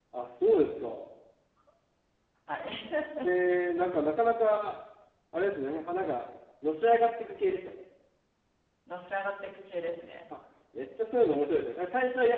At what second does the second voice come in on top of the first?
none

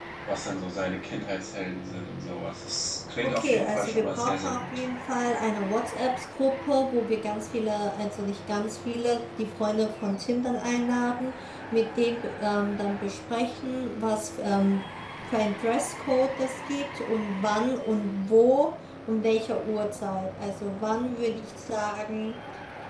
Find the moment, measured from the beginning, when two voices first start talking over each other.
3.2 s

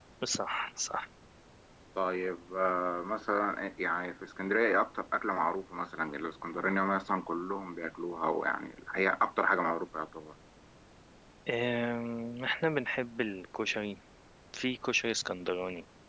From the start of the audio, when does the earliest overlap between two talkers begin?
none

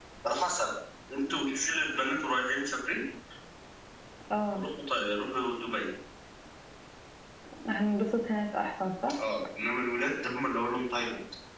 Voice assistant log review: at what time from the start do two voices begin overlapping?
none

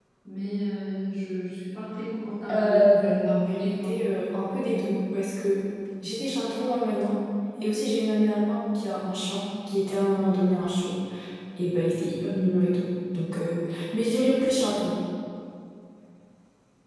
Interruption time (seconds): 2.5 s

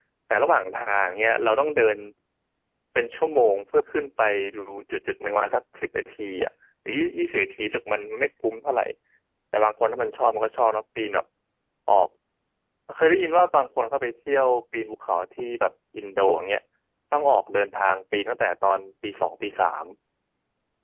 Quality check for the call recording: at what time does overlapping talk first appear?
none

